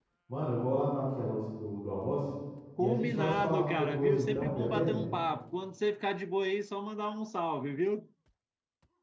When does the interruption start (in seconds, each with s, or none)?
2.8 s